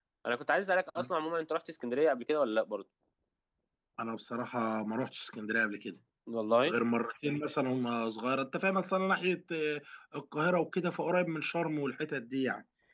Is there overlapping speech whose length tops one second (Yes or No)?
No